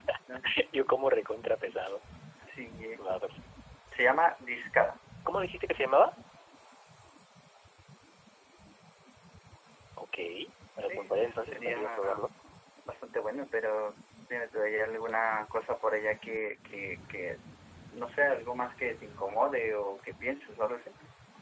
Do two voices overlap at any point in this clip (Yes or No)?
Yes